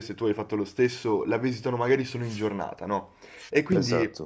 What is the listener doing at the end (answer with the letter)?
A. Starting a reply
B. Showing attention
B